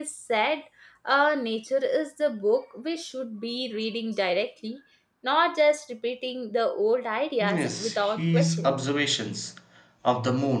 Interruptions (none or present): present